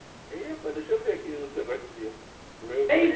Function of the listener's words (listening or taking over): taking over